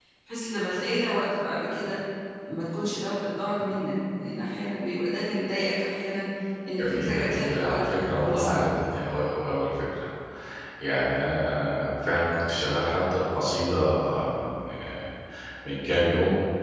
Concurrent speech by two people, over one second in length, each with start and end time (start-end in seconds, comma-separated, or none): 6.8-8.5